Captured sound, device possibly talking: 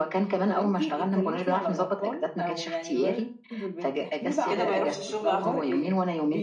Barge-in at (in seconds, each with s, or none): 4.4 s